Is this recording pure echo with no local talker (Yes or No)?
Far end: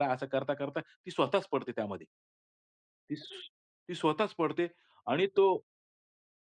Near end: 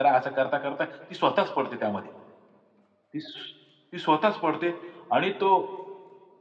Yes